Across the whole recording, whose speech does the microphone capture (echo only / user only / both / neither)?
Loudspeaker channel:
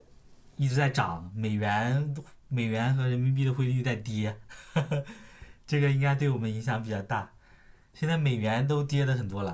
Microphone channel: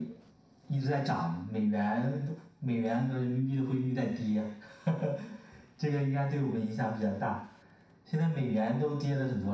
echo only